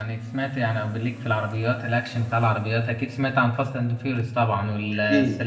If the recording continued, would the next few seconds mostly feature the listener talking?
Yes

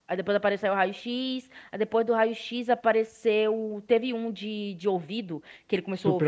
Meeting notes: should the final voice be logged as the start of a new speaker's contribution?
No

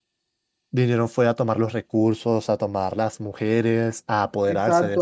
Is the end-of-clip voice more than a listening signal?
Yes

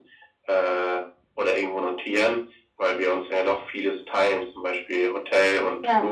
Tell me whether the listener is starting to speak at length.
No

